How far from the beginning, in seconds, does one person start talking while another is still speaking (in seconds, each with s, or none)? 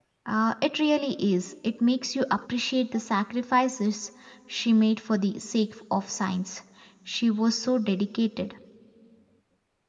none